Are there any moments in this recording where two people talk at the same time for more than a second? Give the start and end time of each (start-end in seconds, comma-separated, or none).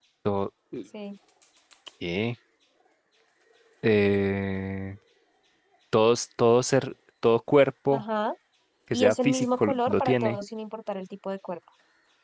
8.9-10.4